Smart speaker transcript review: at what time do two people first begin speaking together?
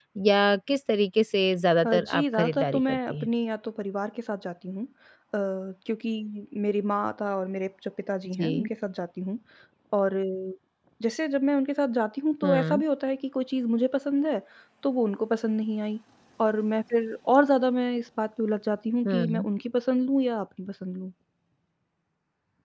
1.9 s

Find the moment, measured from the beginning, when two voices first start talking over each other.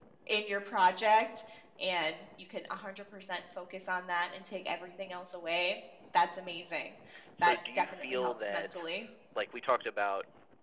7.4 s

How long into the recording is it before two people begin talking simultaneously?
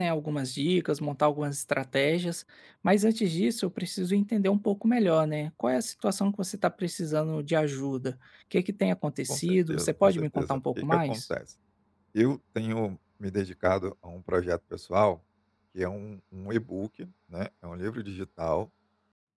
9.3 s

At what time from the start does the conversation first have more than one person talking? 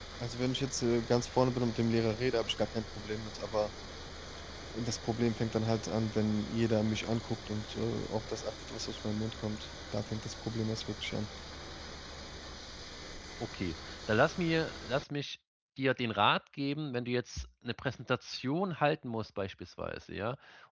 none

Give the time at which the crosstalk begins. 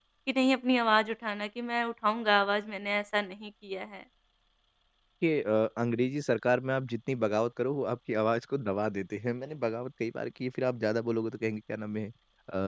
none

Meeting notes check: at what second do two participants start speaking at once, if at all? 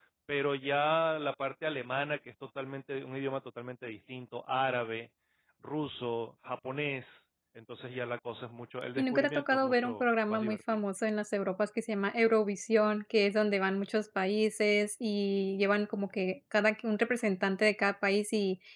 9.0 s

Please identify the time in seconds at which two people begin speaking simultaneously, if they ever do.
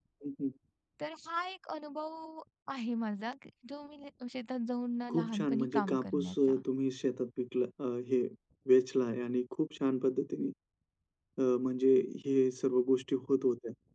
5.1 s

